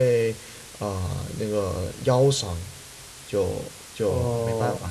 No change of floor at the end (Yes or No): Yes